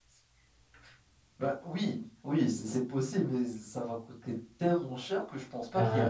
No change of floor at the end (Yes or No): No